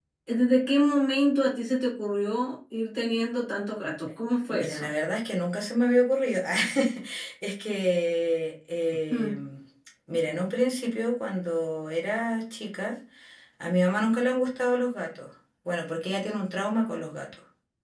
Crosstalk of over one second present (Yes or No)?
No